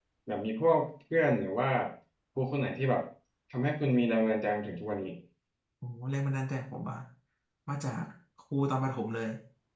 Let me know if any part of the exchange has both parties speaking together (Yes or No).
No